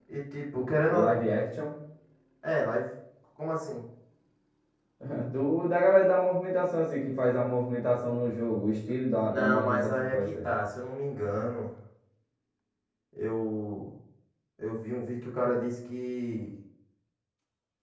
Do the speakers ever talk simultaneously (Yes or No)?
Yes